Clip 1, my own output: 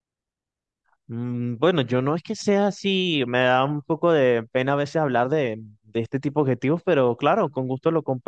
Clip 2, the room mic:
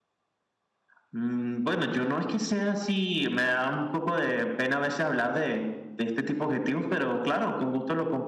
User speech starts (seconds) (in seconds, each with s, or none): none